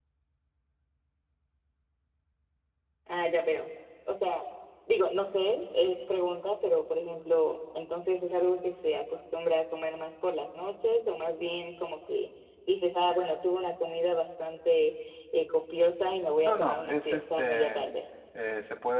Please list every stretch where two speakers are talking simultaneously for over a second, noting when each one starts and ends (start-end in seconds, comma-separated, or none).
16.4-17.8